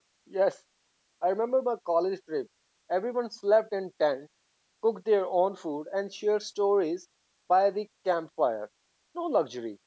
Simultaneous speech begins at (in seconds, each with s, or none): none